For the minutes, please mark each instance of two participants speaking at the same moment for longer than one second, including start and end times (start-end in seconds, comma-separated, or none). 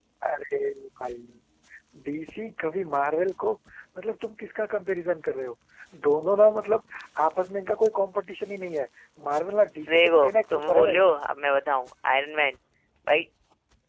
9.9-11.1